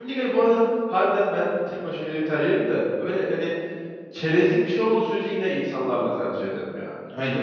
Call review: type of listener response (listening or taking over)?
taking over